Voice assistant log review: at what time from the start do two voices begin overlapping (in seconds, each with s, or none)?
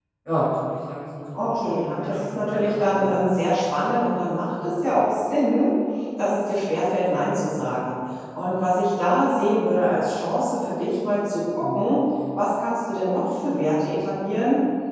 1.5 s